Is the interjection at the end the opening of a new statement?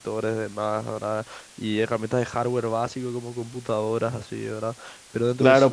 Yes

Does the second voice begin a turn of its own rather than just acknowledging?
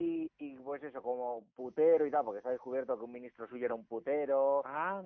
No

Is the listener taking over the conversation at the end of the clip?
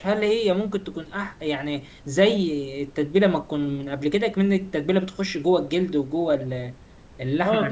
Yes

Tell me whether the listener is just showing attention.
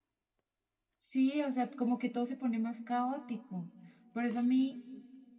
Yes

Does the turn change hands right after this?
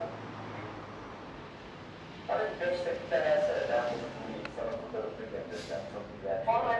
Yes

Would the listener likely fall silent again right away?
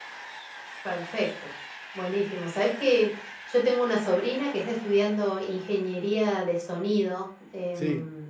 Yes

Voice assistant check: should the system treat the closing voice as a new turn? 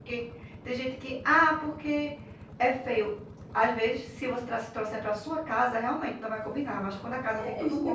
Yes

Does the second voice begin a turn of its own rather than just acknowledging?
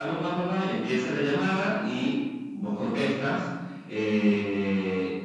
No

